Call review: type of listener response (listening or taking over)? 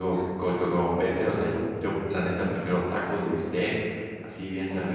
listening